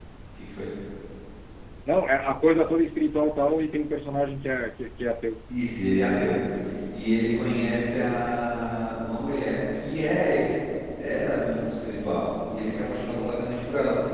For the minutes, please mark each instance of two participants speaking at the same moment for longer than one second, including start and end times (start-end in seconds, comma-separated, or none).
none